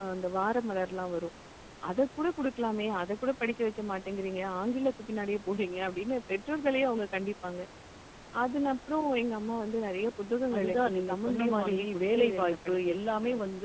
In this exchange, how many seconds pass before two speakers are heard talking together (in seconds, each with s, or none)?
10.5 s